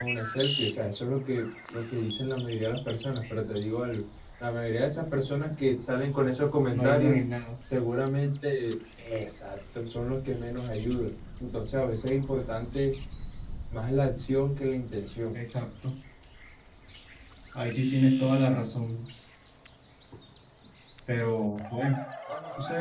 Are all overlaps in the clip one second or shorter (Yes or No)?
Yes